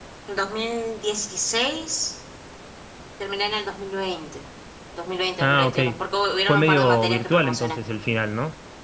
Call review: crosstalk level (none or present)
present